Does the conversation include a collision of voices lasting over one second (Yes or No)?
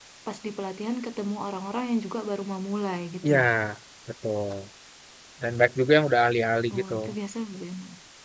No